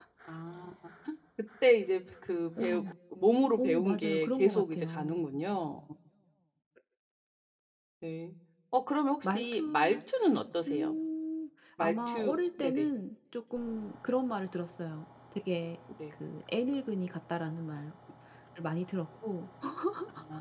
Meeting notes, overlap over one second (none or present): present